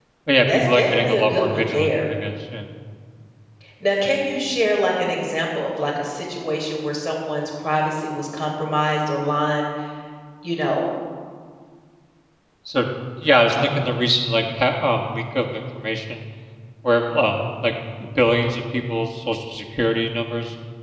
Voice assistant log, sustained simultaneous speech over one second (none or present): present